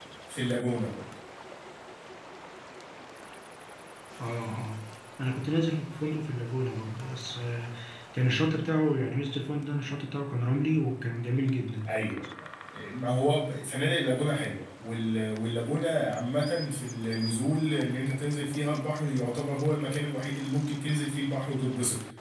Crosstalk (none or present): none